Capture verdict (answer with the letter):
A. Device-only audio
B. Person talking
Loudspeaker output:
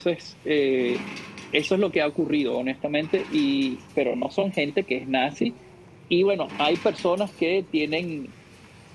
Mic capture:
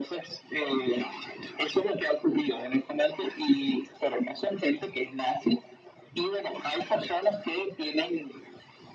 A